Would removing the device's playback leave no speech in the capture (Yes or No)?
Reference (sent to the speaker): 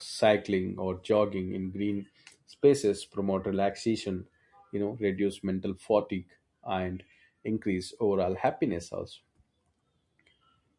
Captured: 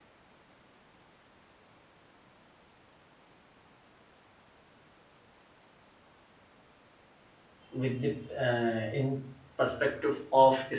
No